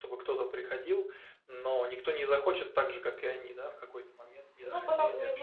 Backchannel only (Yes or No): No